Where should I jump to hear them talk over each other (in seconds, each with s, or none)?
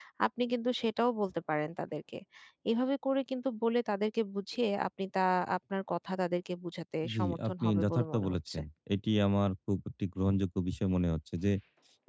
7.0 s